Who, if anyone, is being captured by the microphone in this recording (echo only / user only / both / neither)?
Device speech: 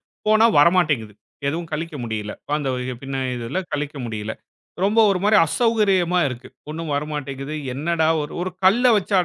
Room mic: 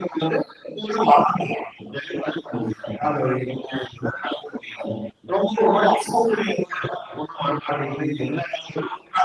echo only